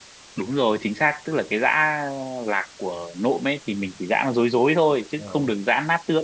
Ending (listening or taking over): listening